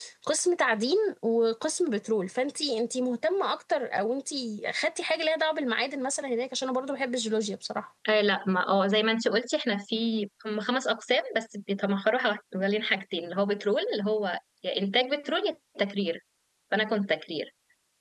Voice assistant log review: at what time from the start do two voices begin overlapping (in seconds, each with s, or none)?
none